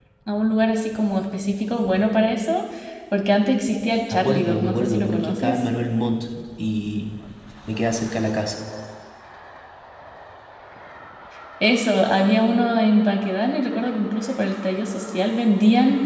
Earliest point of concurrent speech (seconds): 4.1 s

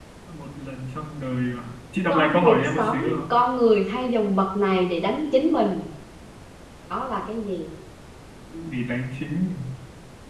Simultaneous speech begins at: 2.1 s

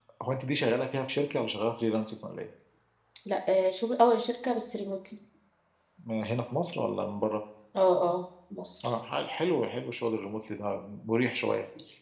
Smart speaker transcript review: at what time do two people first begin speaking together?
none

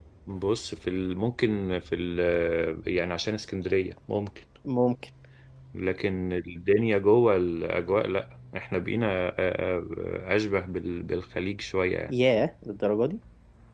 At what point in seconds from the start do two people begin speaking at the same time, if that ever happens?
none

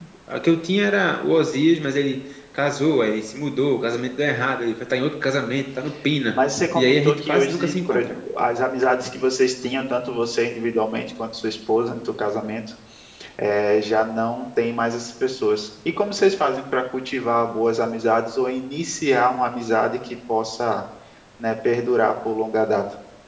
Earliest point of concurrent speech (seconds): 6.8 s

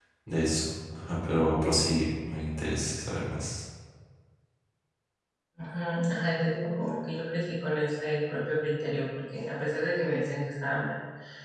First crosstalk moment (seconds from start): none

